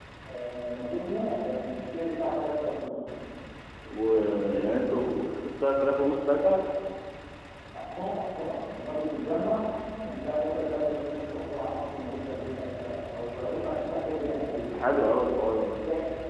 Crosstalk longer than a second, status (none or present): none